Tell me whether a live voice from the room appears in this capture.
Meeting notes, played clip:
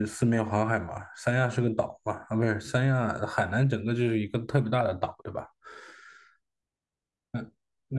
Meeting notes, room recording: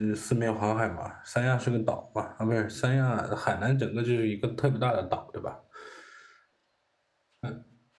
No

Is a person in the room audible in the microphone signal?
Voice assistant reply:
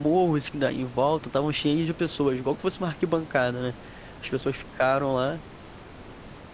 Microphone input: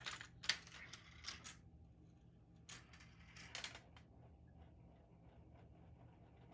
No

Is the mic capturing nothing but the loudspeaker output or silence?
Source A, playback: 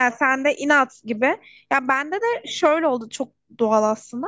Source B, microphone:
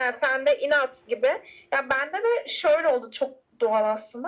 Yes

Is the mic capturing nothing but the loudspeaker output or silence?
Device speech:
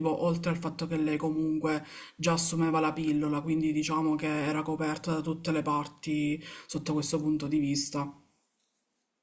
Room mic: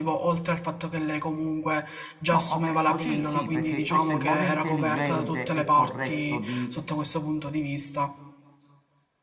No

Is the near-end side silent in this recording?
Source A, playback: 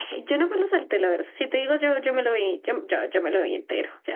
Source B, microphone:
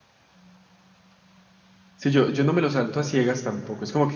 No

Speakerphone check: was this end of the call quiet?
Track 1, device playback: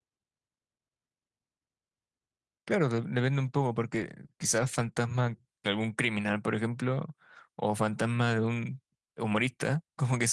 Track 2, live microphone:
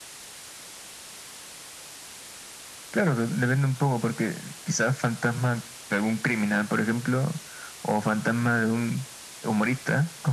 Yes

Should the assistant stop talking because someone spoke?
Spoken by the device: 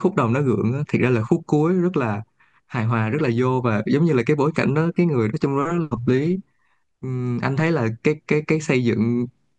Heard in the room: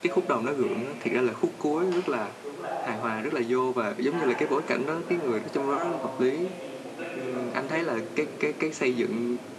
Yes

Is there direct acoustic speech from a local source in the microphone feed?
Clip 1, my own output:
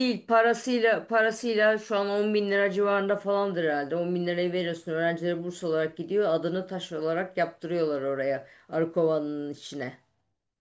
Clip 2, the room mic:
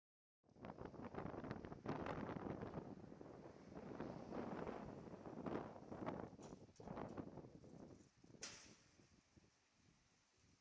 No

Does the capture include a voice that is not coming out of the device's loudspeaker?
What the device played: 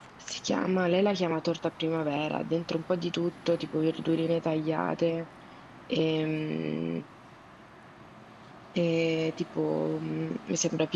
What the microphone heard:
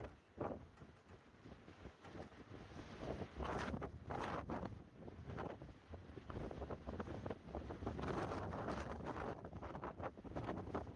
No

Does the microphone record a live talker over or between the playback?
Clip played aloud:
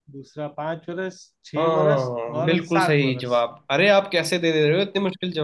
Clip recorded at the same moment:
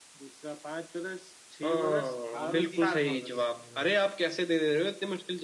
Yes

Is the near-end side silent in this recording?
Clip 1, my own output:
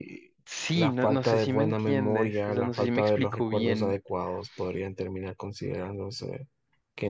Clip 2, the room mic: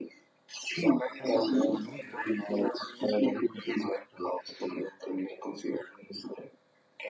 No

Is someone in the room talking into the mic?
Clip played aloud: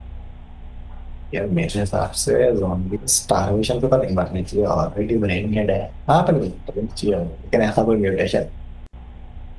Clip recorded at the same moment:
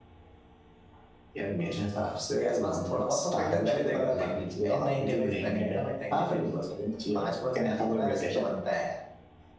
Yes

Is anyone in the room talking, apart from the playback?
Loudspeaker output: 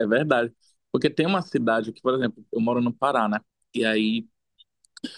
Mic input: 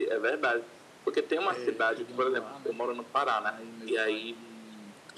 Yes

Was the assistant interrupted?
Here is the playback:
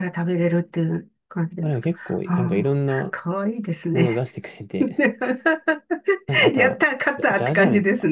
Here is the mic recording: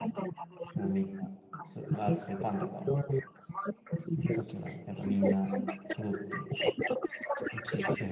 Yes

